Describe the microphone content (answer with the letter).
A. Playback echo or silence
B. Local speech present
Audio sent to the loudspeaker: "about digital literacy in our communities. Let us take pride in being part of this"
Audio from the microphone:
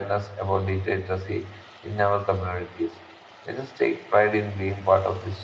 A